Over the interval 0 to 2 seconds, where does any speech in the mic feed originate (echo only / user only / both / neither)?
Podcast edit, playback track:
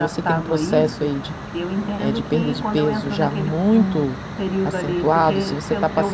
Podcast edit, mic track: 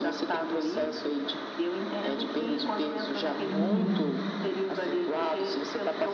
echo only